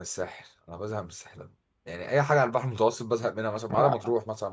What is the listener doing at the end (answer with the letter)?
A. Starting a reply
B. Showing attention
B